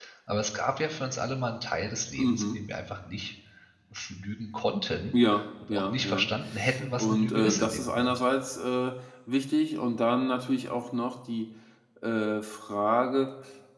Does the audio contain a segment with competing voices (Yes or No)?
Yes